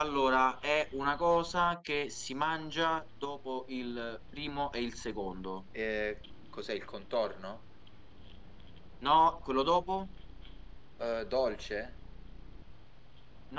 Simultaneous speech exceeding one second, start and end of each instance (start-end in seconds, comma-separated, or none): none